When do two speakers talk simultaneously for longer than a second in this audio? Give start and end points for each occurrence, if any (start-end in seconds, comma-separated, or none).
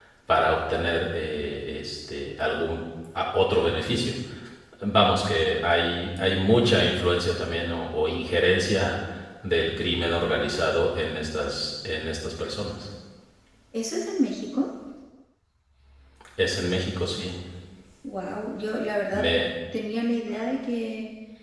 none